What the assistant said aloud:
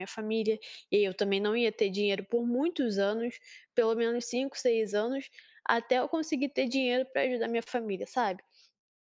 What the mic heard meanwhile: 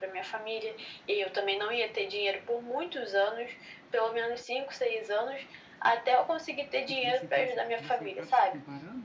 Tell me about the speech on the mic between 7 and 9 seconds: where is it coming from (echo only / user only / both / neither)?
both